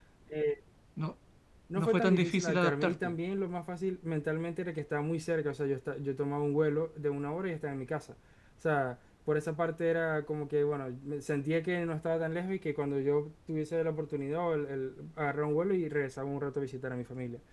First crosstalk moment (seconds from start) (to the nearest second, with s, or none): 2 s